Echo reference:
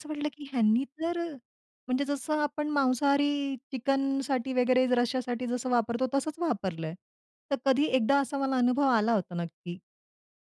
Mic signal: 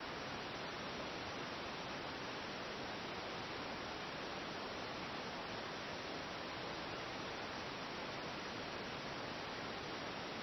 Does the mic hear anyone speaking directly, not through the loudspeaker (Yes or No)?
No